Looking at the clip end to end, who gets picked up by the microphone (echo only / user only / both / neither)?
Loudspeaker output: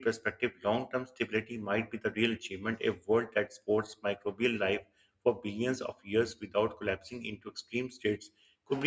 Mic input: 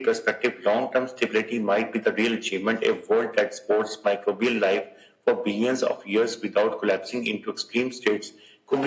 echo only